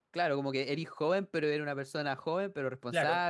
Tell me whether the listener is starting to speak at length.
Yes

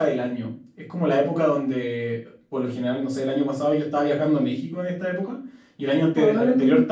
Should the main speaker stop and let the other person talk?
No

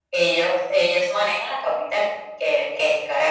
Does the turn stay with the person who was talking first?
Yes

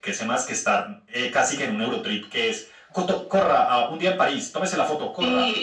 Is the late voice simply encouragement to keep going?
No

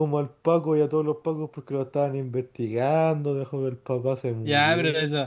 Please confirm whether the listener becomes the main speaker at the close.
Yes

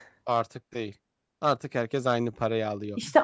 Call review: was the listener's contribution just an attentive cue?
No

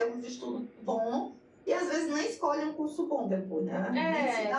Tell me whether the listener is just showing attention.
Yes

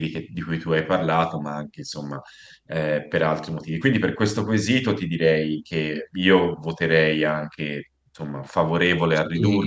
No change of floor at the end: No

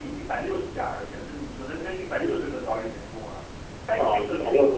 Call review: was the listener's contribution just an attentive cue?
No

